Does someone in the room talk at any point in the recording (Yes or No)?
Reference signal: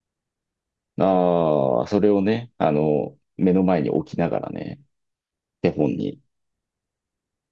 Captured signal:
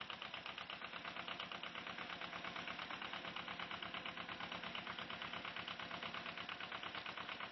No